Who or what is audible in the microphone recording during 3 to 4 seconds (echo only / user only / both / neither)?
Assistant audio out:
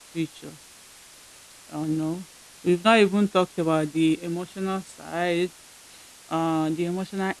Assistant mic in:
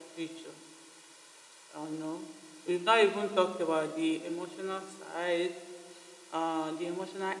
echo only